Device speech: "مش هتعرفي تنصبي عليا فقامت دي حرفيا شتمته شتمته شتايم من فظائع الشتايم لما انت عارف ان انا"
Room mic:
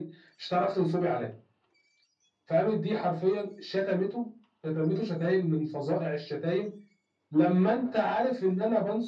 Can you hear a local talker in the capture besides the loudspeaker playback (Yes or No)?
No